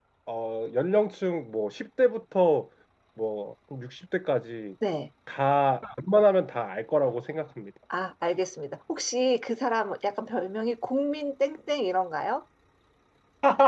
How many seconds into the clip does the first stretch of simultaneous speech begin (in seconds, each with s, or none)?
none